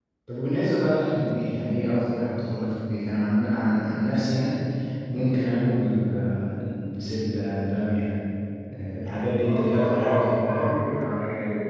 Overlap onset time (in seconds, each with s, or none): 9.4 s